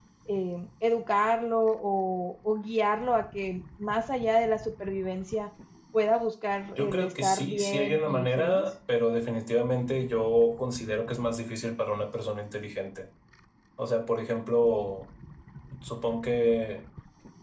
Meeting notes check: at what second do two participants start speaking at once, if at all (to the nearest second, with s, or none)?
7 s